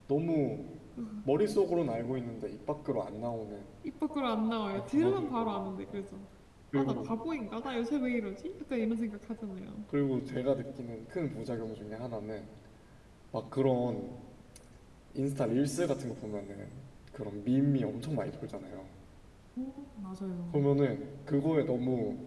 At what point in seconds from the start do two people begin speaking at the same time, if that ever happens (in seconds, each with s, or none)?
4.7 s